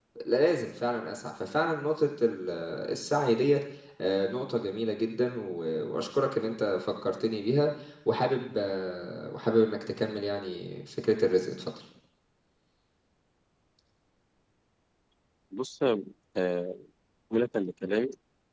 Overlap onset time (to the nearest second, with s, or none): none